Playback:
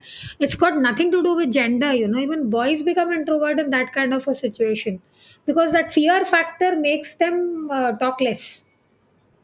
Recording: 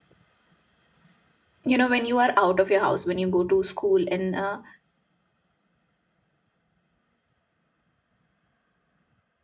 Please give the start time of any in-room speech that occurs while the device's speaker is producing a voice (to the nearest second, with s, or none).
2 s